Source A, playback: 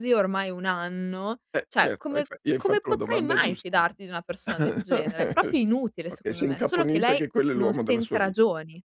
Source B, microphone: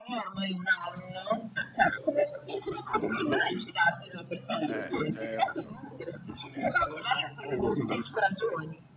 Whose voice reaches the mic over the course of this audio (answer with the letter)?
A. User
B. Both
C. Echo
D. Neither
B